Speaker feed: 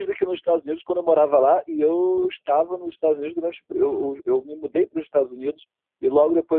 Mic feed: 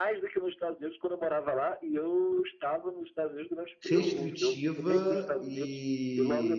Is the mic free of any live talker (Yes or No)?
No